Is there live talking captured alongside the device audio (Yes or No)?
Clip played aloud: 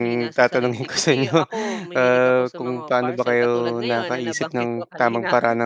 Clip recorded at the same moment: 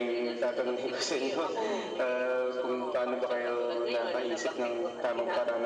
No